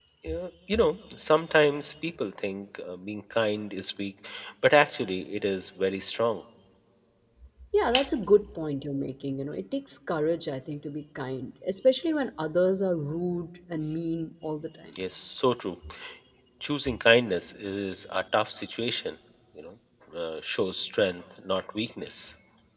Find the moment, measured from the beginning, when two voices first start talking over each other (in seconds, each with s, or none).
none